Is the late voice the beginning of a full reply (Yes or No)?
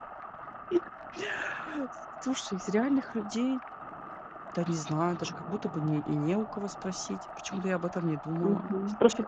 Yes